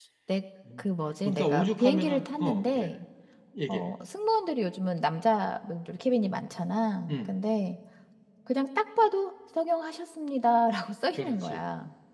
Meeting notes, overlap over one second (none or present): present